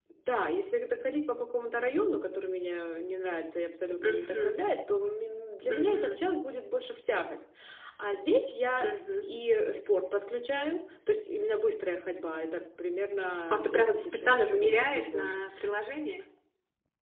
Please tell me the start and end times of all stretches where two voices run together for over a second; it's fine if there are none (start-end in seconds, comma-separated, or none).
13.5-15.4